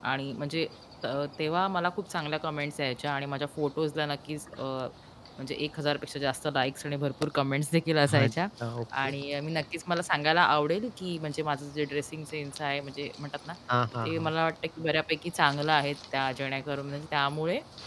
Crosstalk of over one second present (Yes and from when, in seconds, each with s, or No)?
No